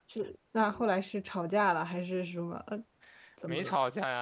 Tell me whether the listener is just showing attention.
No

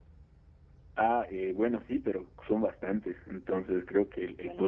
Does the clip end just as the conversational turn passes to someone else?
No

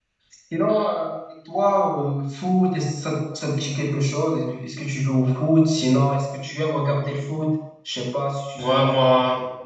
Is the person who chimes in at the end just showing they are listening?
No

